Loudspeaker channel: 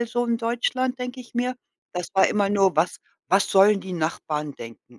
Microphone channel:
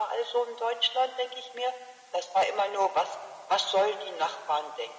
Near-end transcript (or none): none